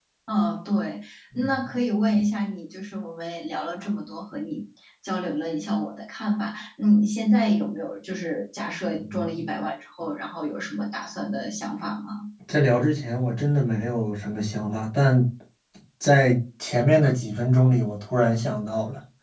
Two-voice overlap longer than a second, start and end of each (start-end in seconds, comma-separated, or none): none